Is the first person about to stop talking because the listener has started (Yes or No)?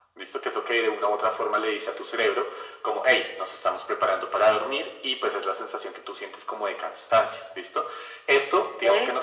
No